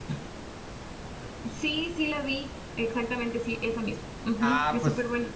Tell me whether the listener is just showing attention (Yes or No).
No